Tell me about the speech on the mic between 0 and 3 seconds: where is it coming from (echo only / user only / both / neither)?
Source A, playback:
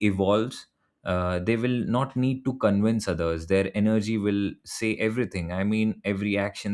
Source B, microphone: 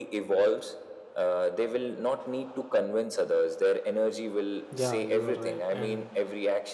echo only